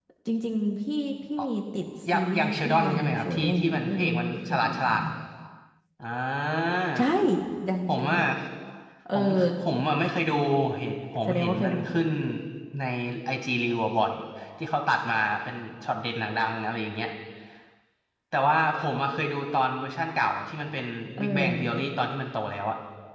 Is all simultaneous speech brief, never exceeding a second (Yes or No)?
No